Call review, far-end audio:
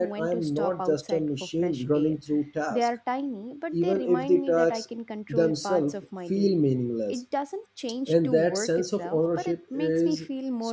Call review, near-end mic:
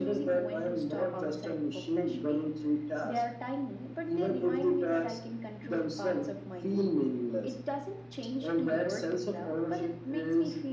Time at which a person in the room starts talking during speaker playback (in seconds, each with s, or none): none